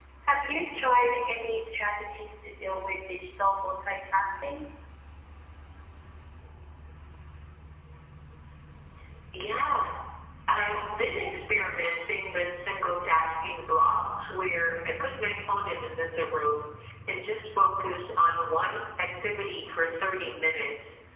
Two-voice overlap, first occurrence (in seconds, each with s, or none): none